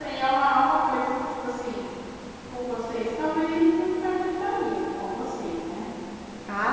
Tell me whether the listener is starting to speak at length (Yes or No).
Yes